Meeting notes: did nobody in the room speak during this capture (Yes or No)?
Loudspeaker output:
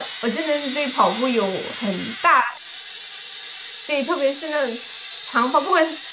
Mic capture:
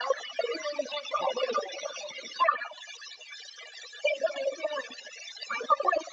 Yes